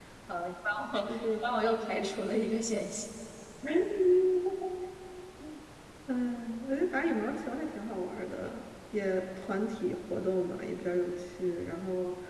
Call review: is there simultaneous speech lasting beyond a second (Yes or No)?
Yes